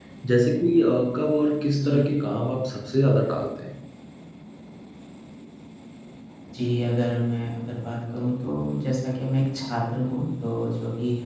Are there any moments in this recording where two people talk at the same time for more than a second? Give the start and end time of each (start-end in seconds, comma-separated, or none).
none